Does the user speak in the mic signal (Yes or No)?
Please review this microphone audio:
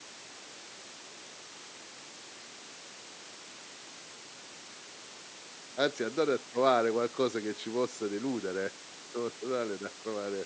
Yes